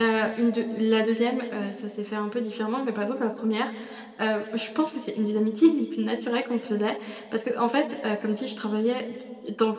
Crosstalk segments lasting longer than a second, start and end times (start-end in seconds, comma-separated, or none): none